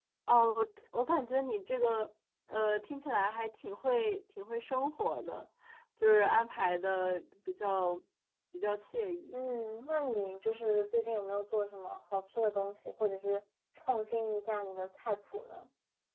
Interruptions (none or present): none